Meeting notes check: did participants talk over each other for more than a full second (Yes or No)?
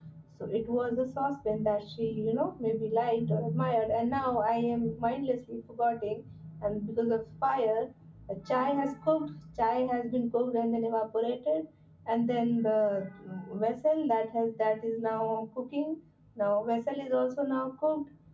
No